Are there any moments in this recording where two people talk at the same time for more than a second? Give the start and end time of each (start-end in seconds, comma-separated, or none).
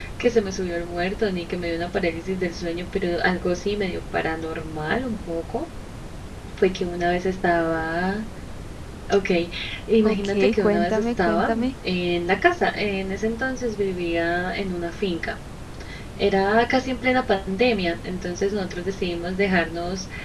10.0-11.6